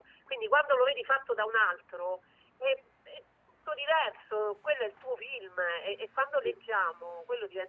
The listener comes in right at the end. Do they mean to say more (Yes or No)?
No